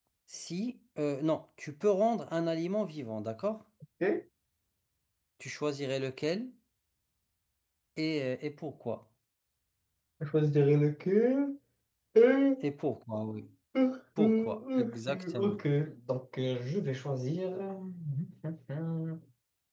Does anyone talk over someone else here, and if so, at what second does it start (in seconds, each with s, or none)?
14.2 s